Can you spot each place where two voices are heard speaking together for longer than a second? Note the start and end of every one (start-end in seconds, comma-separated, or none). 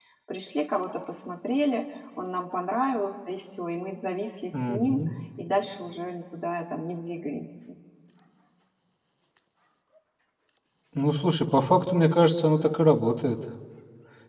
none